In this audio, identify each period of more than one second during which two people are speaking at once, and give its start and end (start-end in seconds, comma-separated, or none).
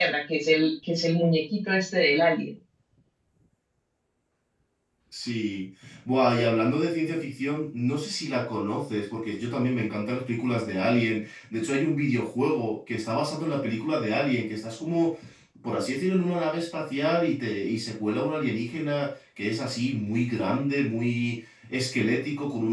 none